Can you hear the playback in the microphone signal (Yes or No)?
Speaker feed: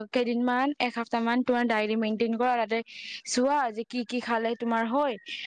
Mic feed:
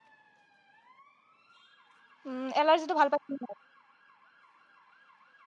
No